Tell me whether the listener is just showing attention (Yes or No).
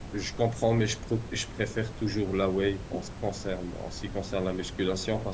Yes